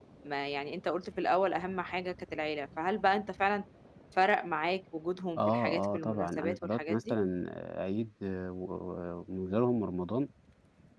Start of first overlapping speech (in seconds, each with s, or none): 5.4 s